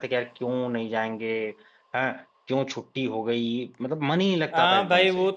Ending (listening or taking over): taking over